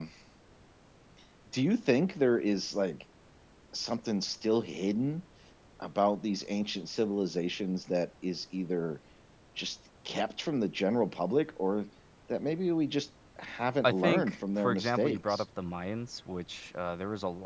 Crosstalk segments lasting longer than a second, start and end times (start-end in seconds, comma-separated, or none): 13.8-15.4